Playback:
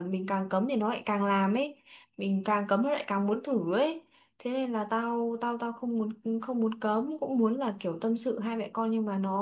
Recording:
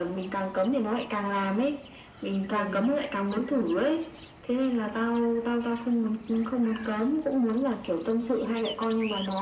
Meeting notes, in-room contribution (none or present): present